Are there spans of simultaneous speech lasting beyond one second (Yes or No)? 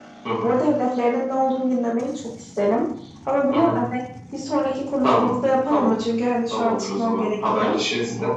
Yes